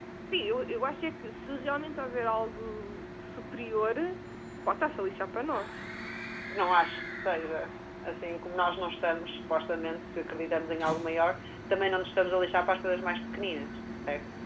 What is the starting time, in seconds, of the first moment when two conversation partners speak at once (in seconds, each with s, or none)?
none